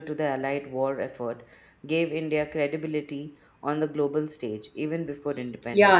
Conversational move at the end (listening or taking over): taking over